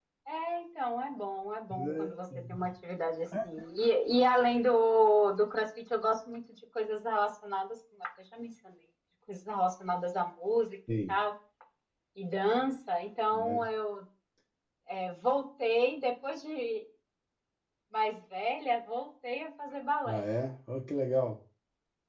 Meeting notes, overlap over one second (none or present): none